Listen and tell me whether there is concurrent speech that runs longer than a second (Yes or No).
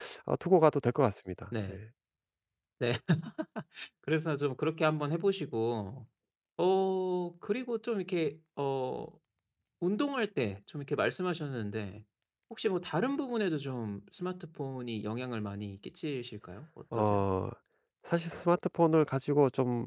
No